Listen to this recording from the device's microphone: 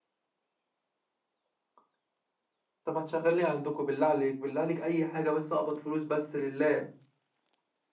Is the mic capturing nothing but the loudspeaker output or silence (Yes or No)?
Yes